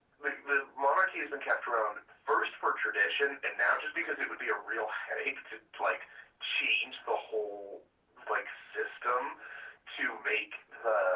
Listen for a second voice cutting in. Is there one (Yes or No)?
No